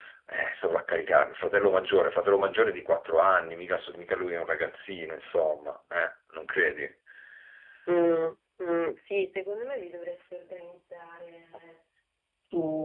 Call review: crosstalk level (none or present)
none